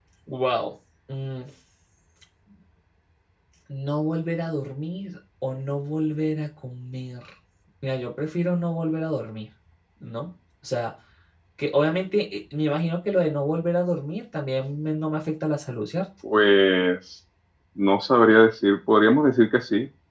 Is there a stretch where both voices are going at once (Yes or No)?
No